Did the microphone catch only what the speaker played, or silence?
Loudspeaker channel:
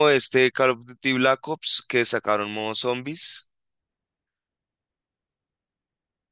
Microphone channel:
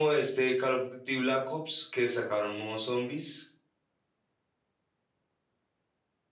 Yes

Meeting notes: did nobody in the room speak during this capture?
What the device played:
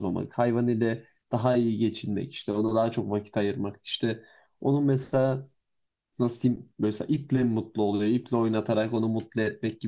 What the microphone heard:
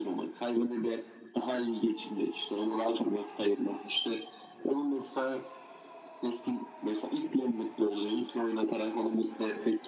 Yes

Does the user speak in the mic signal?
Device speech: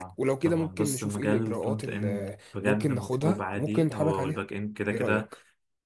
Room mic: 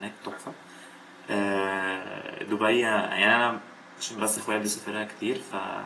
Yes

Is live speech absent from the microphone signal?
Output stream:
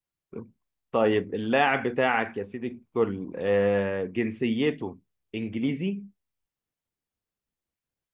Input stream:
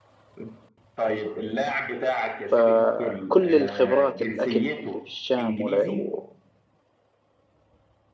No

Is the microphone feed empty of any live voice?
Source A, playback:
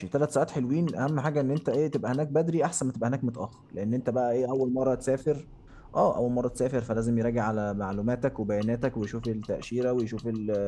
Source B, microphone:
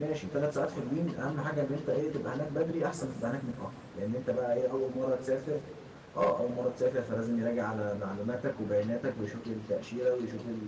Yes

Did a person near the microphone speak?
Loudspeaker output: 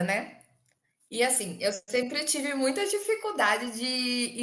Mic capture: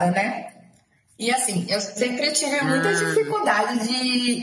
Yes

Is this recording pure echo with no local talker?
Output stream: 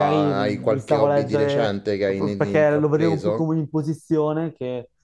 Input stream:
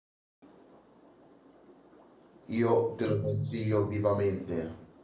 No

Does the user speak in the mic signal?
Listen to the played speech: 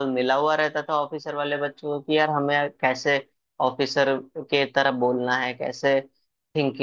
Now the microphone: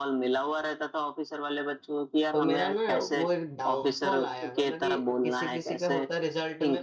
Yes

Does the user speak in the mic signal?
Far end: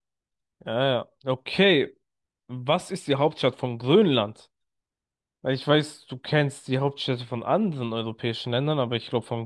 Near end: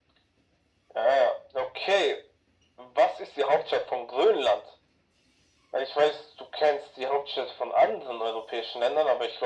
No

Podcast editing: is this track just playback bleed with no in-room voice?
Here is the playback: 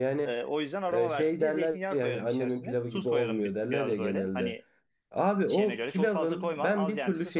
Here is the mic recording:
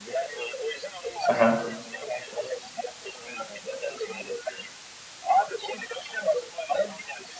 No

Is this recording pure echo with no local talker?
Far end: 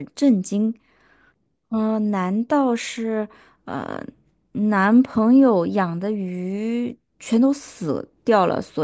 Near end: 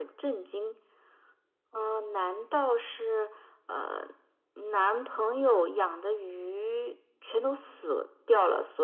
Yes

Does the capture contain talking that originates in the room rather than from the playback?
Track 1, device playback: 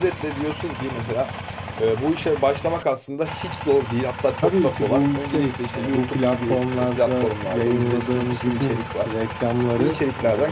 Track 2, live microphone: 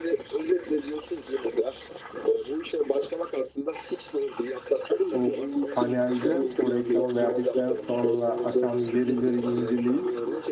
Yes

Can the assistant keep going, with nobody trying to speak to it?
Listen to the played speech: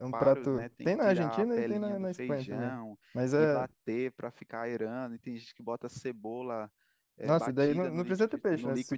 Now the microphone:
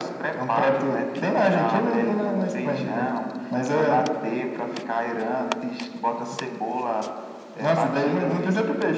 Yes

